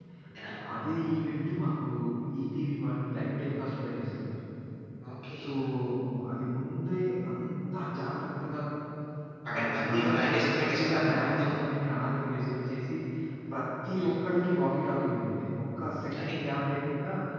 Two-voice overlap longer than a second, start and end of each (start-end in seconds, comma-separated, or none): 9.5-11.5